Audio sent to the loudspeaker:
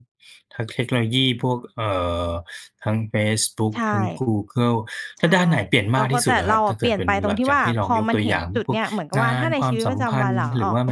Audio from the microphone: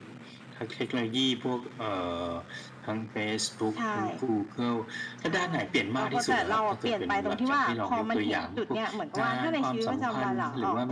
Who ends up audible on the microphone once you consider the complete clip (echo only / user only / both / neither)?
echo only